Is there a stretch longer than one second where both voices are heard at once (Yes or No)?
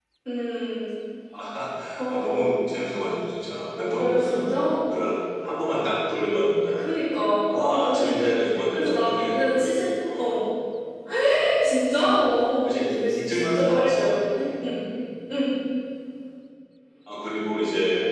Yes